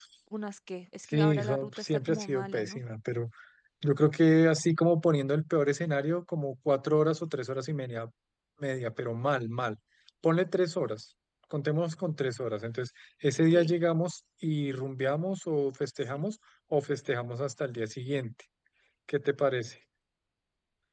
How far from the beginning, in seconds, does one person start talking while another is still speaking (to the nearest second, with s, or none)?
1 s